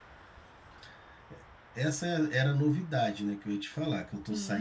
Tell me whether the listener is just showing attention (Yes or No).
No